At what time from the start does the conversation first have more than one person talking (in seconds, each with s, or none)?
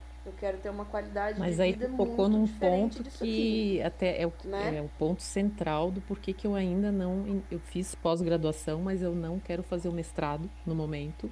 1.4 s